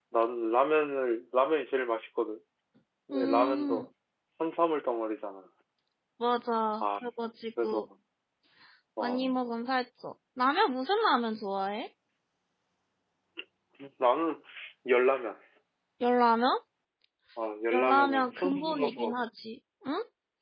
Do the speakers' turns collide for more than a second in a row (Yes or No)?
Yes